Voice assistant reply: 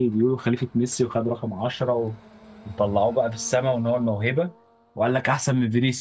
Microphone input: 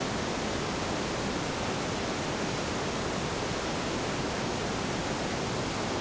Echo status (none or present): none